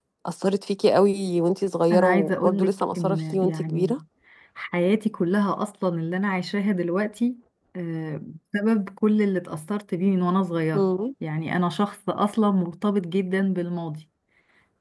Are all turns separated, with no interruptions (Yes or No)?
No